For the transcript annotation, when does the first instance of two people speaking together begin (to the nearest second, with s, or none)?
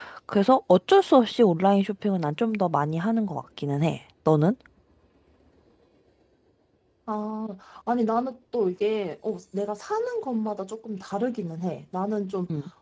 none